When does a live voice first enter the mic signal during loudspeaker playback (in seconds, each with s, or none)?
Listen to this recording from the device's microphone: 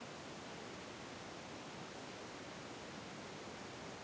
none